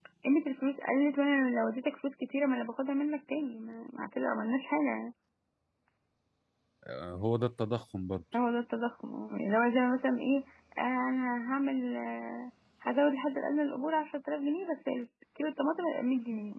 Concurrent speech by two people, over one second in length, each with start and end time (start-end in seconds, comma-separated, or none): none